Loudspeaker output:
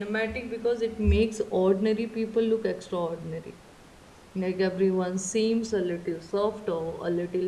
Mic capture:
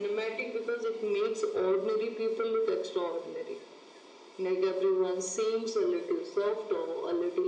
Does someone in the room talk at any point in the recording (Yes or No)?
No